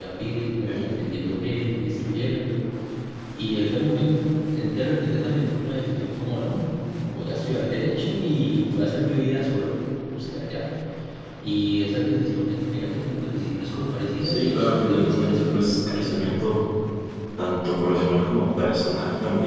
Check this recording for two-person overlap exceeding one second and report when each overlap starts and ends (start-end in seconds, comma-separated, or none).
14.2-16.4